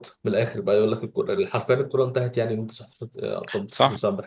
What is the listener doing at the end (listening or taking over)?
taking over